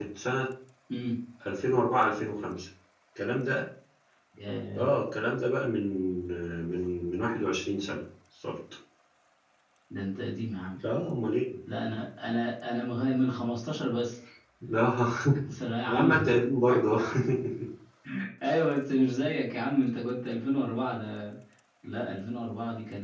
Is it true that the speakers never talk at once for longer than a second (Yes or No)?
Yes